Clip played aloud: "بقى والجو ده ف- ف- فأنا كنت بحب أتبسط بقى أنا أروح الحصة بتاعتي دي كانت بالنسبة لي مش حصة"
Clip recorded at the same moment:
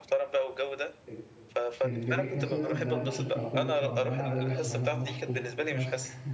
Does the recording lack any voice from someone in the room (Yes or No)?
No